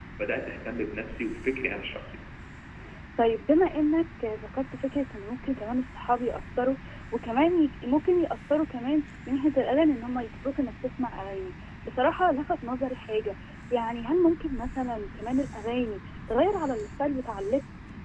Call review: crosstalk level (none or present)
none